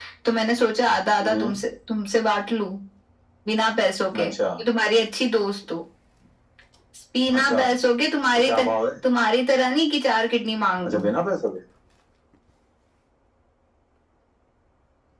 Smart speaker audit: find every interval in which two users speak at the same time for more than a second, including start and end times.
none

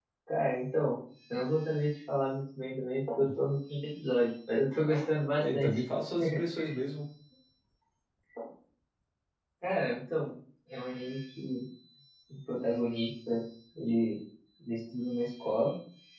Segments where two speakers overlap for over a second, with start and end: none

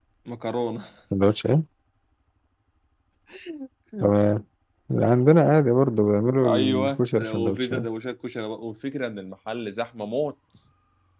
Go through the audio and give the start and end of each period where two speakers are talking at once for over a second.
6.4-7.9

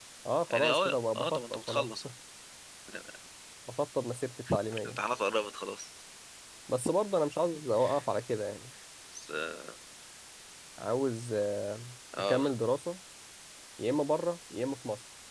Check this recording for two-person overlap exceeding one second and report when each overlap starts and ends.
0.5-2.0

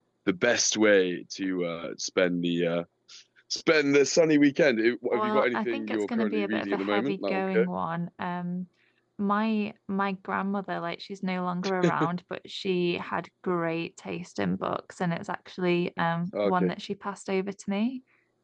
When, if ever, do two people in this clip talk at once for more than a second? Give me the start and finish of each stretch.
5.1-7.7

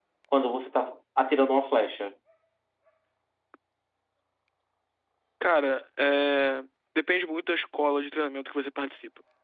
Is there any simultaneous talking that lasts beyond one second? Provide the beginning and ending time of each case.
none

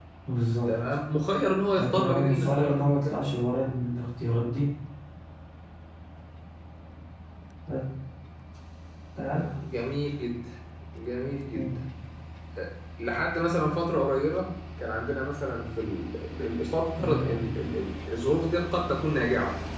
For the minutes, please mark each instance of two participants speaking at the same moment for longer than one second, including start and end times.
1.8-3.4

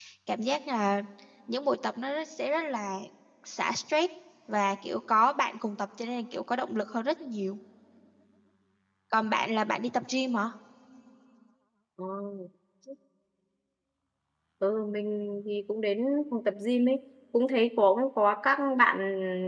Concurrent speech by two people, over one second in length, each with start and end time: none

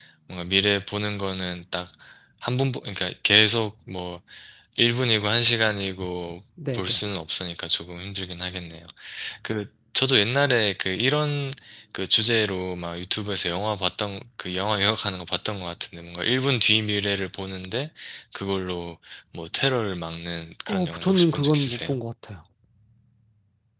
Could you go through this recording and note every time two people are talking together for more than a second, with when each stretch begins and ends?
20.7-22.0

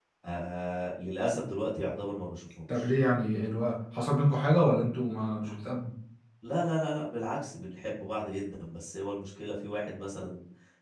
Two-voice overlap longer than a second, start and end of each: none

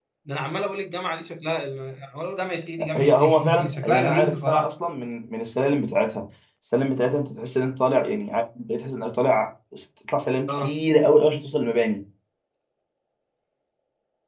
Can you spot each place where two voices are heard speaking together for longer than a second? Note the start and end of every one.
3.0-4.7

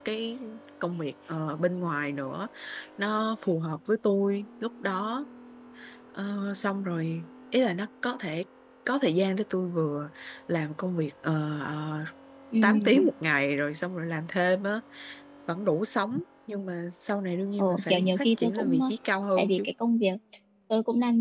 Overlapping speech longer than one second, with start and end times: 17.6-18.8

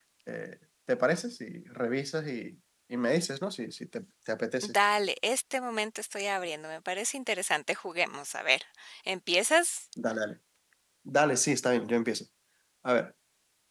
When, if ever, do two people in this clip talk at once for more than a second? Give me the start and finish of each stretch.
none

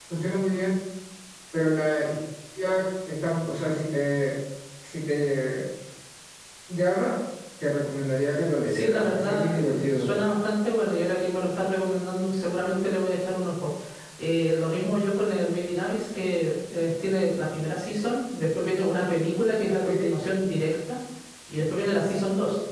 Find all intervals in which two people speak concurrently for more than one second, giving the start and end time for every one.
8.7-10.1

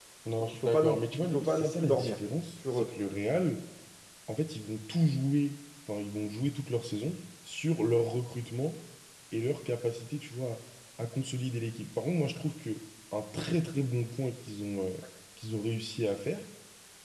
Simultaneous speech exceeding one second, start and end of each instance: 0.7-2.1

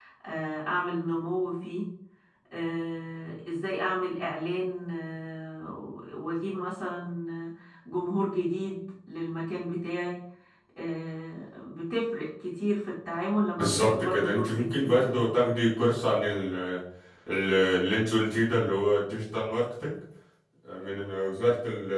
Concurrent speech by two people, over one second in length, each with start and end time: 13.6-15.3

